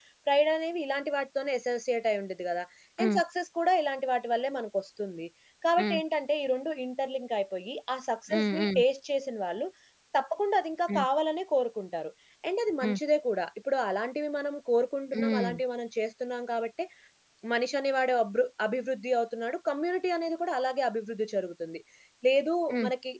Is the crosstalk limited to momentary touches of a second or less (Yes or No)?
Yes